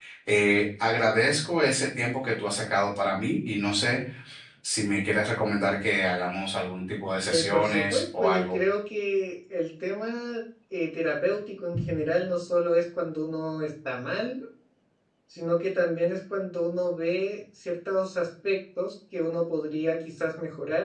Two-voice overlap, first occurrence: 7.3 s

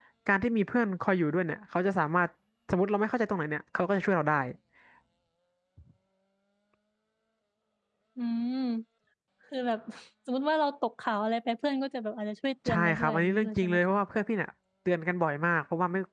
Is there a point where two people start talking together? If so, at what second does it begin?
12.7 s

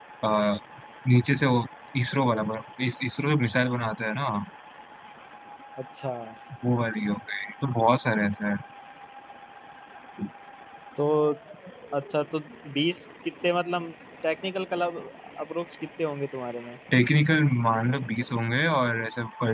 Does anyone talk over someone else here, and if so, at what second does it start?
none

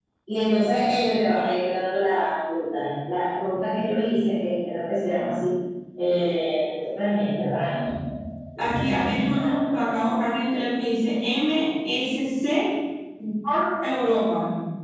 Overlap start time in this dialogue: 8.6 s

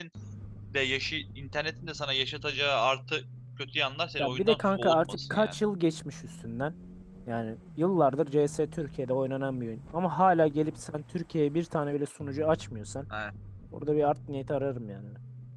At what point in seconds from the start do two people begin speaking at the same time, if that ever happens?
4.2 s

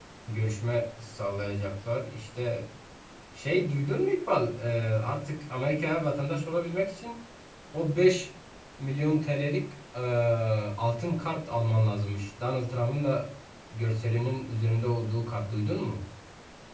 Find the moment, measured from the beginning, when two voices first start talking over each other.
none

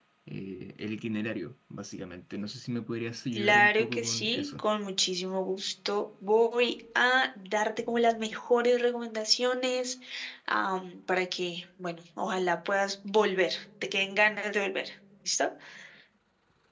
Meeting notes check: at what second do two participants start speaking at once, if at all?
3.4 s

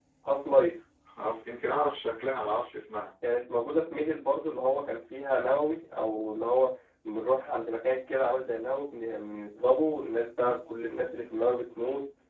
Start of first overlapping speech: none

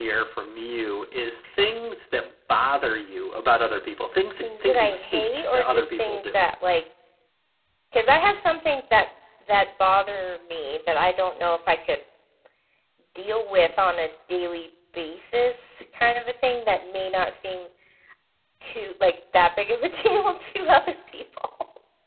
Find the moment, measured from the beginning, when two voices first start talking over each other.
4.4 s

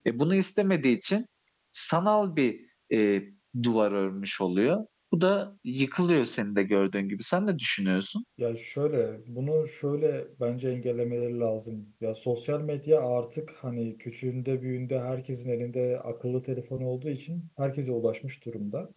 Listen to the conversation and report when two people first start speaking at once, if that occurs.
none

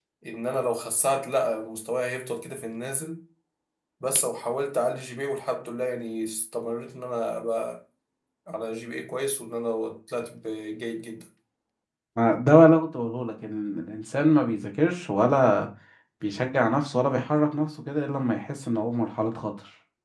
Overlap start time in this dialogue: none

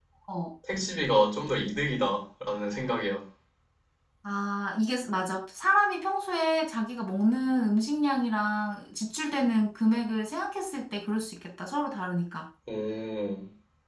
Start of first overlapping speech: none

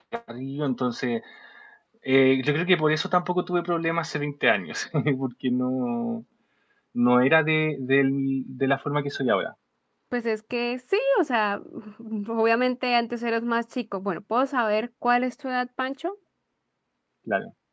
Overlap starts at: none

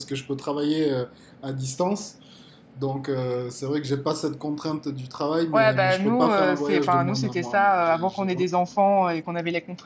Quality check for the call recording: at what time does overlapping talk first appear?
5.5 s

